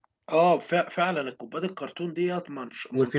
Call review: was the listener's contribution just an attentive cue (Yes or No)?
No